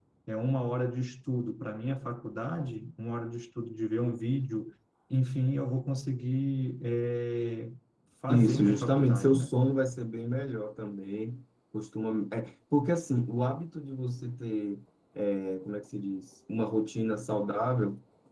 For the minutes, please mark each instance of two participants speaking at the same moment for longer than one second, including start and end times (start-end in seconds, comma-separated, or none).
8.3-9.5